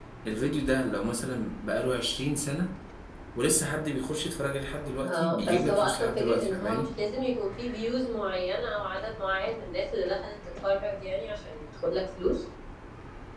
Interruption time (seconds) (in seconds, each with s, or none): 5.0 s